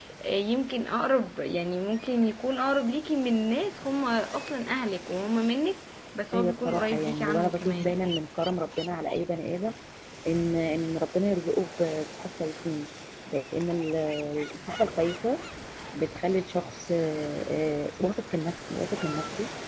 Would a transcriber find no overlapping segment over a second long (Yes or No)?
No